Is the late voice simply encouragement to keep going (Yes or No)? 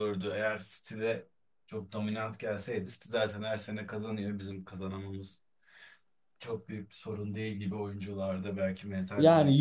No